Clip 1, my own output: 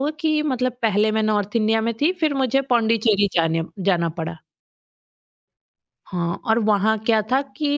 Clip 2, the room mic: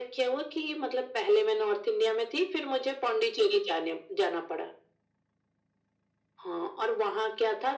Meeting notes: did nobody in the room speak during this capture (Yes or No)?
Yes